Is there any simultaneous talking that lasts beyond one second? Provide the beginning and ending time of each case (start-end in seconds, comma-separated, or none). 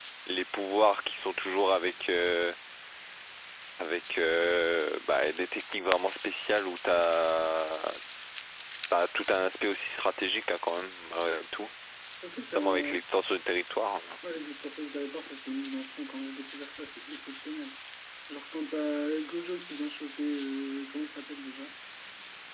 none